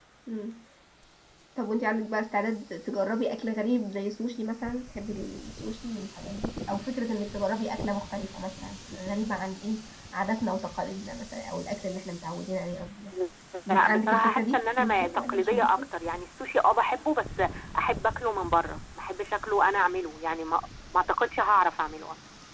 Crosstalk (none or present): present